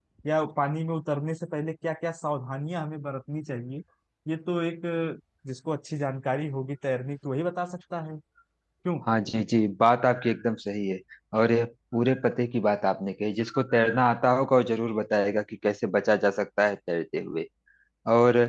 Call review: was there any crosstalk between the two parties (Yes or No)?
No